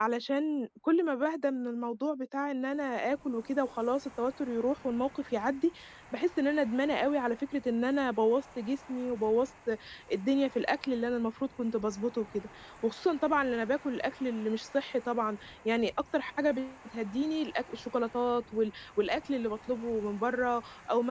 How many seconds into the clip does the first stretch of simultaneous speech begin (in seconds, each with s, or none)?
none